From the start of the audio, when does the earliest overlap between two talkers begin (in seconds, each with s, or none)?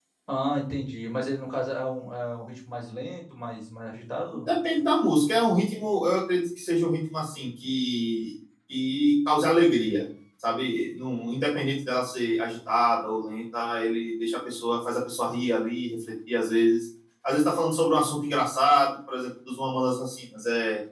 none